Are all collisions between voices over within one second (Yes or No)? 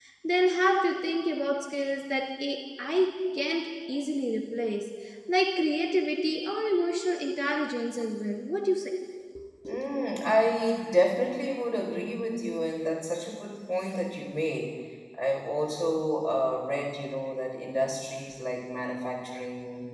Yes